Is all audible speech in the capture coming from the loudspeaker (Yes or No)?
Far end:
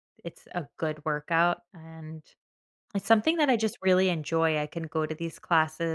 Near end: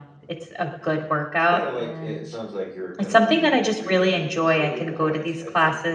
No